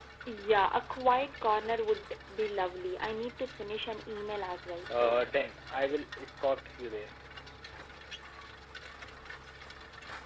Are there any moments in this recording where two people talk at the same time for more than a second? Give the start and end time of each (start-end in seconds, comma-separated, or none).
none